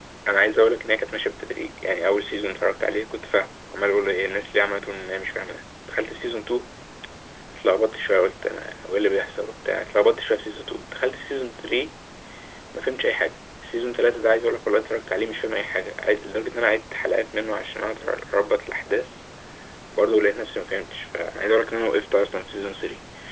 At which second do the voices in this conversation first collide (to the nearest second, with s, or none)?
none